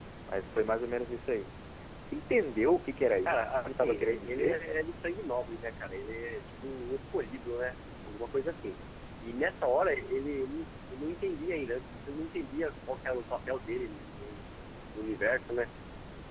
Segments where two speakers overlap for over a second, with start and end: 3.2-4.6

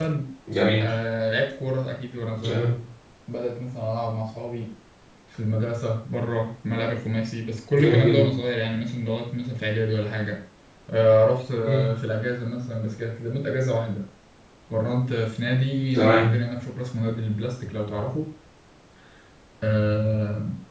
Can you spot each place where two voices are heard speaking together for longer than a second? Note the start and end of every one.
none

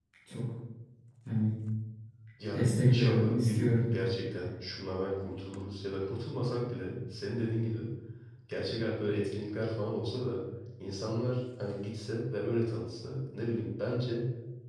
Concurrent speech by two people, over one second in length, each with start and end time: 2.5-3.8

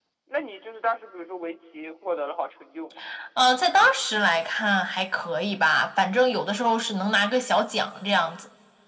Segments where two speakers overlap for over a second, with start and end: none

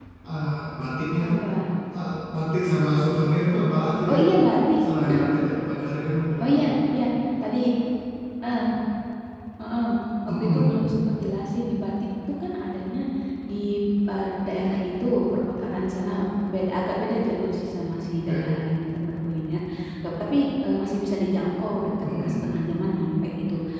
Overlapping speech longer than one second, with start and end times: none

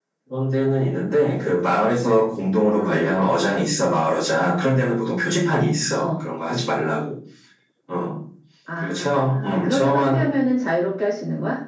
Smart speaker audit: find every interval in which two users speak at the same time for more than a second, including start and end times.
8.8-10.3

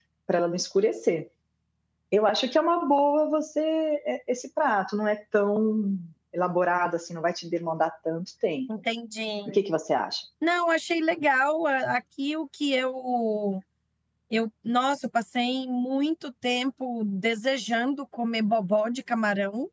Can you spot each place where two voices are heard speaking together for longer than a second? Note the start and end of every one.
none

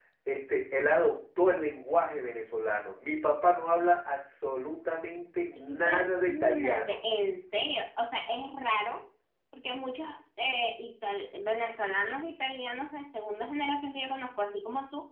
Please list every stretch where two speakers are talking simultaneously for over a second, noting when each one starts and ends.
5.5-7.0

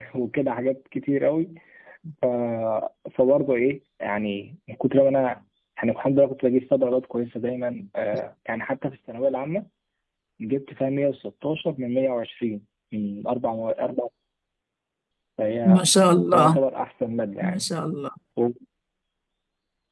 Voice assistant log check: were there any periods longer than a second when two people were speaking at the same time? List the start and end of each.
none

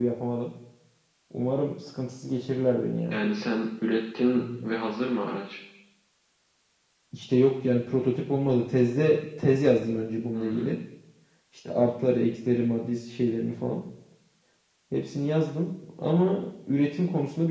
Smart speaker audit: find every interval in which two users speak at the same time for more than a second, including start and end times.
none

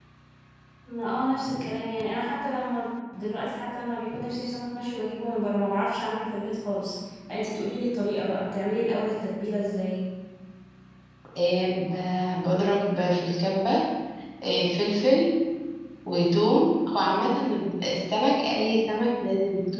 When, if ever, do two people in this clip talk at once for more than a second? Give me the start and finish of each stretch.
none

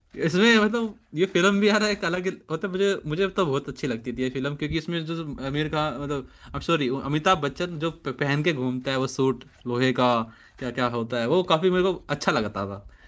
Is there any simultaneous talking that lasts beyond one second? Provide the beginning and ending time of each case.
none

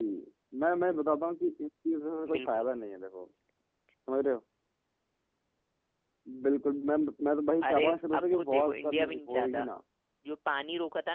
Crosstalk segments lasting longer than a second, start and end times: 7.7-9.7

